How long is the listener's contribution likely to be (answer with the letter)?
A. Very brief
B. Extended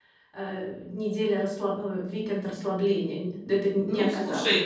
B